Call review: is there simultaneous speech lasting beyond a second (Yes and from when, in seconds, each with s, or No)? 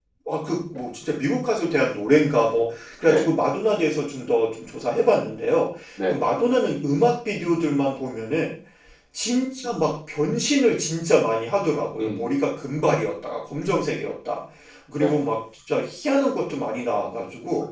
No